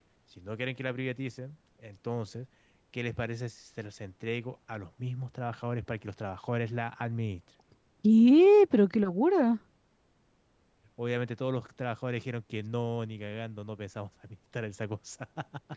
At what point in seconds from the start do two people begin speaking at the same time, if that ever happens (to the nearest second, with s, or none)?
none